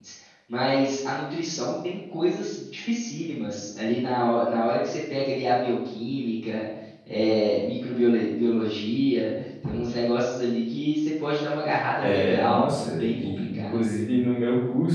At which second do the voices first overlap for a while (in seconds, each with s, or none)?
12.0 s